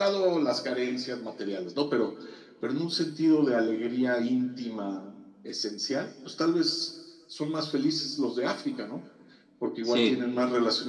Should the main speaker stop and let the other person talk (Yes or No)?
No